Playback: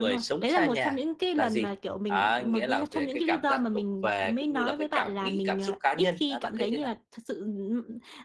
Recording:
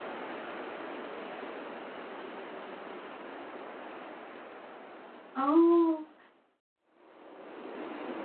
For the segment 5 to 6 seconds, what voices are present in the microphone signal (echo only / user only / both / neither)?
user only